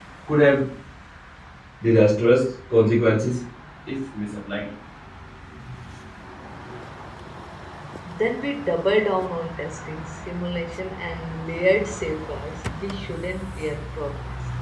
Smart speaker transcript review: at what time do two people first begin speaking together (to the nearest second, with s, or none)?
none